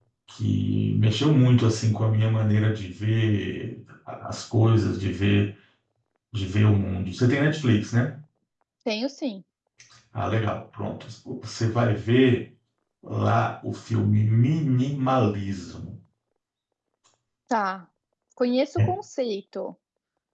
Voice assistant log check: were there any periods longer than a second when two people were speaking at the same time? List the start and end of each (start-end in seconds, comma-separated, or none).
none